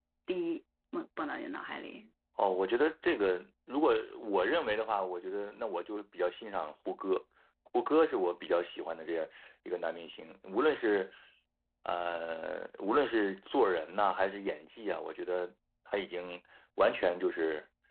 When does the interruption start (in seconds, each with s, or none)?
none